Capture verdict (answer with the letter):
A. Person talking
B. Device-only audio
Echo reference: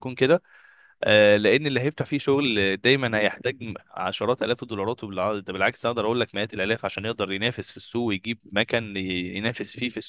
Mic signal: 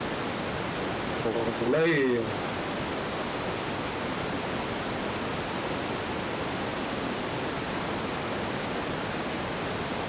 A